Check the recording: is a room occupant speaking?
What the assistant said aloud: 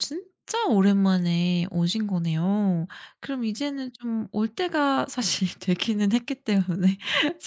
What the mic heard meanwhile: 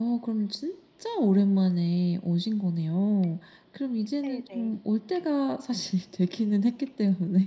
Yes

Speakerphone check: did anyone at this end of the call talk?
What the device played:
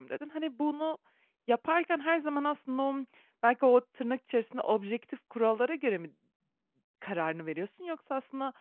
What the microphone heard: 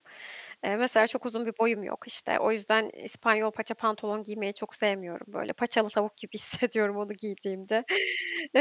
Yes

